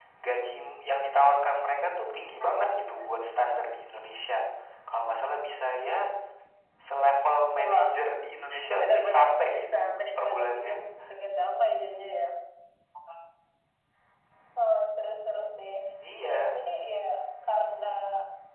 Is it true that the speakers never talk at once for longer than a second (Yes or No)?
No